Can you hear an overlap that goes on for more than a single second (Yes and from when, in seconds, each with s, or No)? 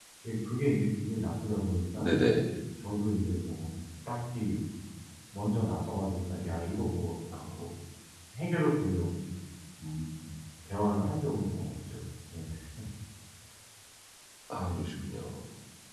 No